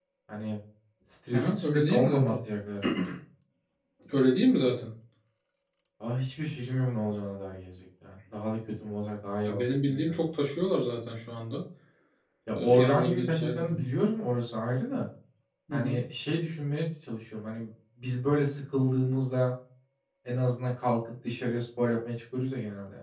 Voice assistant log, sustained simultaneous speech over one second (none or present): present